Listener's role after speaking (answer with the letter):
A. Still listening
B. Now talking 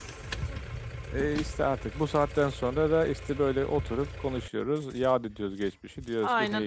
B